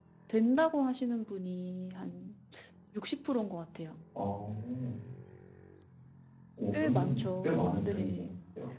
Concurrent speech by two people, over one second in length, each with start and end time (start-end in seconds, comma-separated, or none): 6.8-8.2